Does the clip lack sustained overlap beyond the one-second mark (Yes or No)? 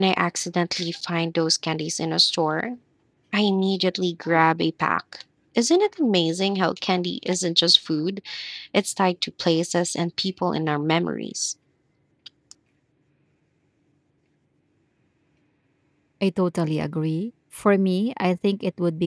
Yes